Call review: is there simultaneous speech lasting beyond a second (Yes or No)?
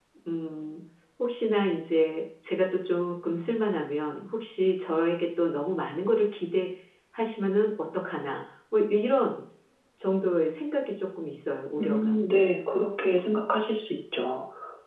No